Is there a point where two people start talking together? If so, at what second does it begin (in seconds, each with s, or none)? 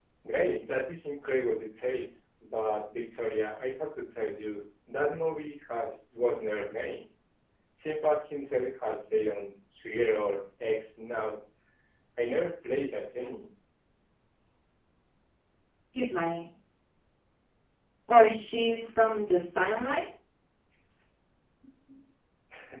none